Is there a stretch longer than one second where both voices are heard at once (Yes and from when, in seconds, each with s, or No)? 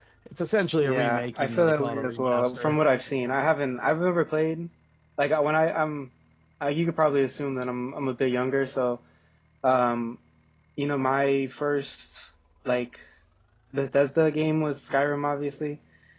Yes, from 0.8 s